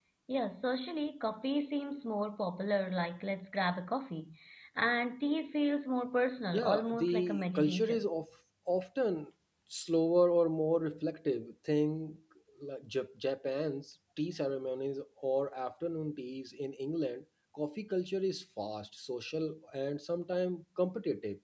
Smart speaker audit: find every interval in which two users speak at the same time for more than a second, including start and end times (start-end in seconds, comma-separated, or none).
6.5-8.0